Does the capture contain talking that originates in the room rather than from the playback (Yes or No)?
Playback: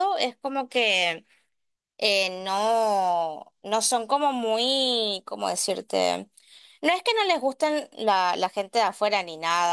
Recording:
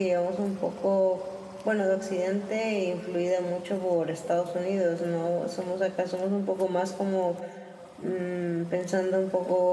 Yes